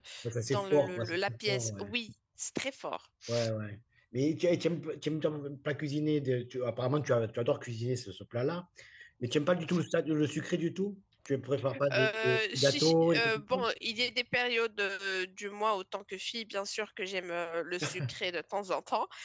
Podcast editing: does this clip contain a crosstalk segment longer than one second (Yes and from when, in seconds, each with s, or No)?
Yes, from 0.5 s